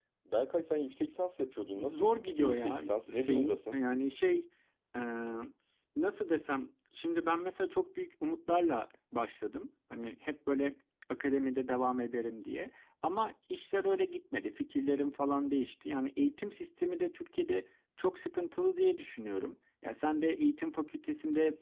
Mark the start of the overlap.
1.8 s

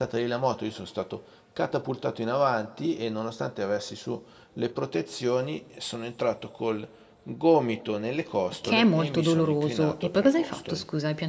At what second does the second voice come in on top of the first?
8.6 s

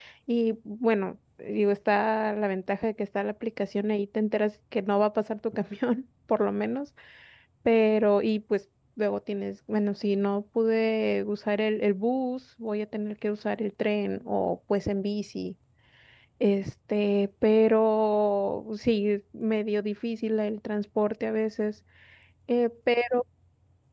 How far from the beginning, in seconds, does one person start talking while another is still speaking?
none

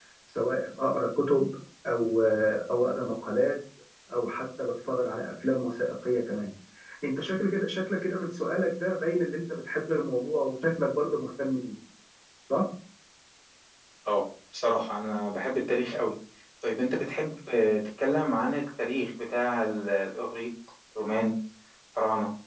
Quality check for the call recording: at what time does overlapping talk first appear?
none

